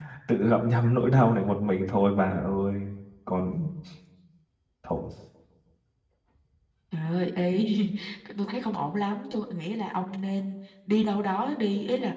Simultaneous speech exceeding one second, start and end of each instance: none

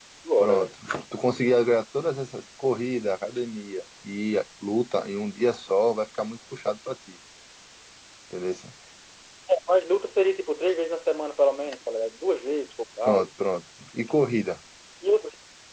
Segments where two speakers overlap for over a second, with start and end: none

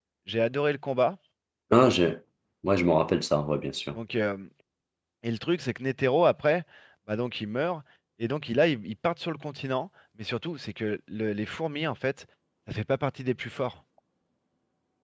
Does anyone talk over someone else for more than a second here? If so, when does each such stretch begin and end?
none

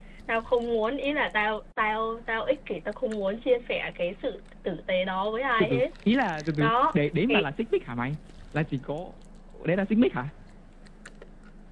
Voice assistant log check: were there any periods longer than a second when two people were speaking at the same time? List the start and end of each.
none

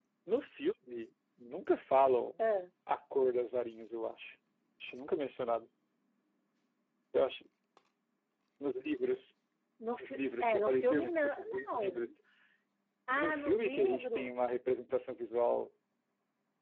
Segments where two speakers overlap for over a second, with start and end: 10.0-12.1, 13.1-14.4

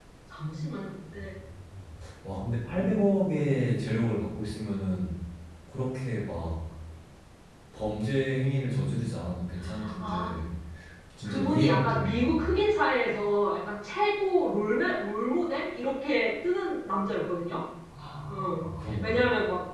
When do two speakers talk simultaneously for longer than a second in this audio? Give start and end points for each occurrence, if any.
11.2-12.5

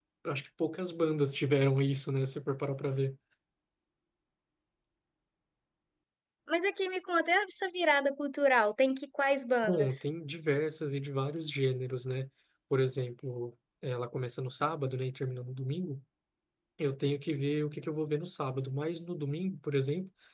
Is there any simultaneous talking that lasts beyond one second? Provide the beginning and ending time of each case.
none

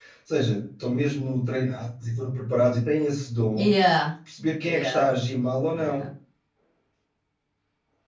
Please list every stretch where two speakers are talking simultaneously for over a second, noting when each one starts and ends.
none

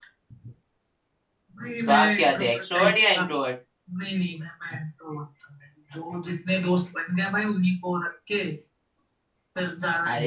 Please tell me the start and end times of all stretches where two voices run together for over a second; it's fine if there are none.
1.9-3.2

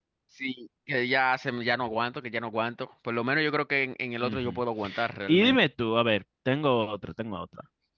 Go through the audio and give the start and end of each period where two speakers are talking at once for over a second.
none

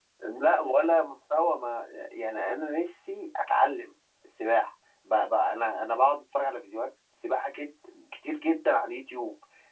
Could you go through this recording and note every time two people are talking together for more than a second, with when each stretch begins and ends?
none

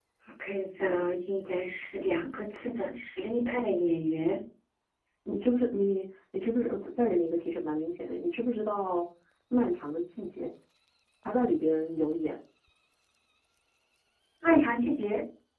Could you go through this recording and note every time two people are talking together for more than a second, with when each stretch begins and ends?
none

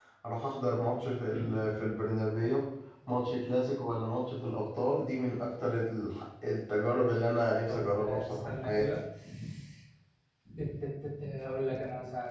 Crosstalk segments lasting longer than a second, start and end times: 7.7-8.9

